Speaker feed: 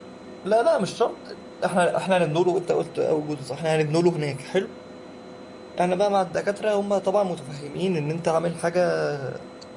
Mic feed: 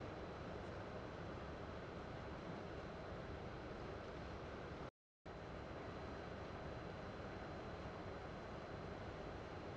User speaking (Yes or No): No